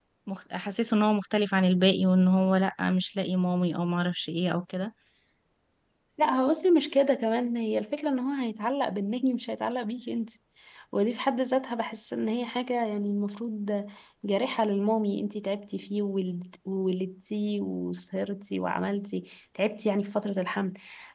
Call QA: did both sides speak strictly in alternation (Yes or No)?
Yes